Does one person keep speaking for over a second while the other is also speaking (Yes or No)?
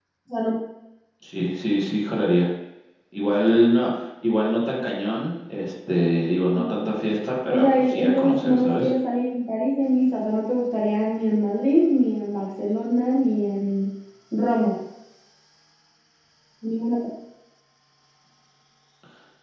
Yes